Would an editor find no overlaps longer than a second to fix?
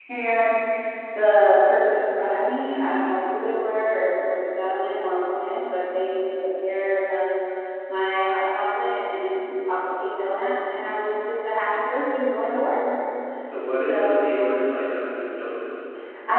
Yes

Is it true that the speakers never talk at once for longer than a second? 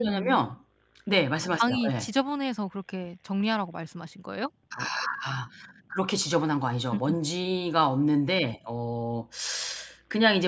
Yes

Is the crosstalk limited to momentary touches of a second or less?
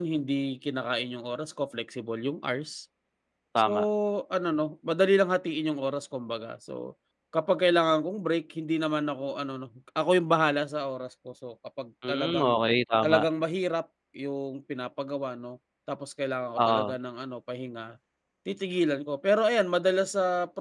Yes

